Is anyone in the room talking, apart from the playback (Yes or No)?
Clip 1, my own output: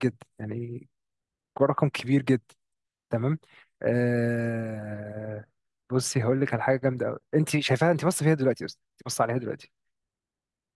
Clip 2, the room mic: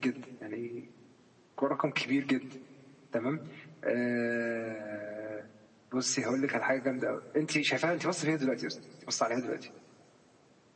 No